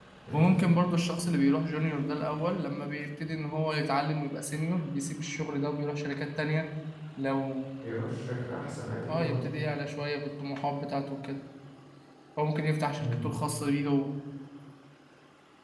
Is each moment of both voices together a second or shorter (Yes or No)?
Yes